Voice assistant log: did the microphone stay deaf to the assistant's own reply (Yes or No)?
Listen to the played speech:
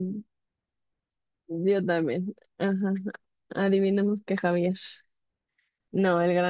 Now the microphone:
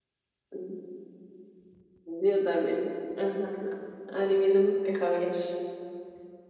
No